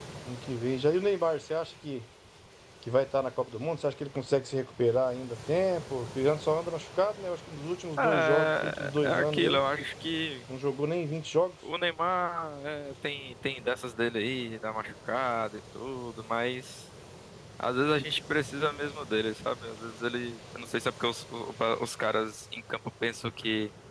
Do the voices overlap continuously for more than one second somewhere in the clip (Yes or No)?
Yes